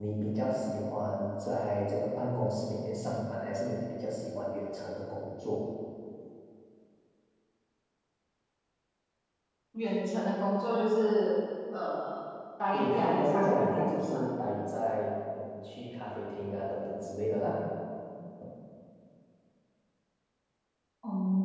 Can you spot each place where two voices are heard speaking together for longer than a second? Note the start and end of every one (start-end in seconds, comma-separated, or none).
12.7-14.2